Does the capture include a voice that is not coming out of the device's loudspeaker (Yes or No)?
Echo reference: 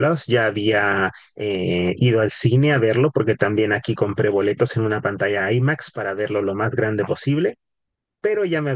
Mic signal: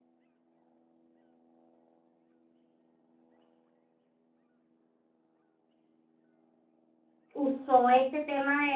Yes